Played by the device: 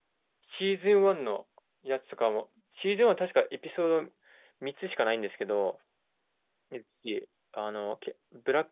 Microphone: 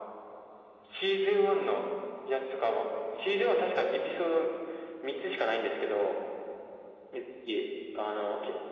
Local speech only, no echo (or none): none